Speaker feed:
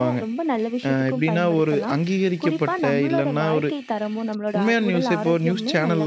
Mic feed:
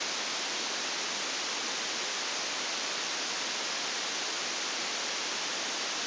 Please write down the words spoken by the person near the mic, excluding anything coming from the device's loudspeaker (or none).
none